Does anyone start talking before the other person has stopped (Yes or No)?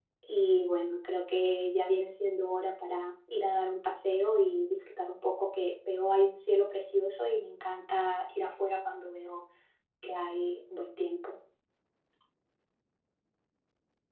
No